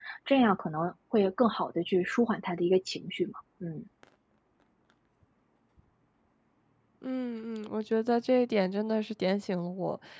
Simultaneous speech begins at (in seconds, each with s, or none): none